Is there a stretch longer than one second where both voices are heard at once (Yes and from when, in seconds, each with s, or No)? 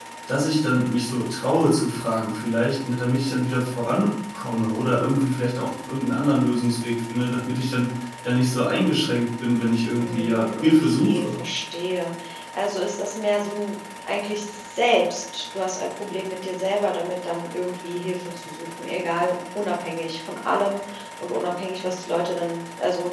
Yes, from 10.0 s